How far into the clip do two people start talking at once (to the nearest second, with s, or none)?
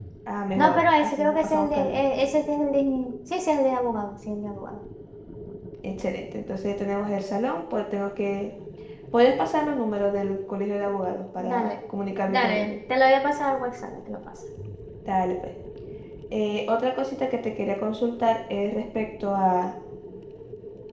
1 s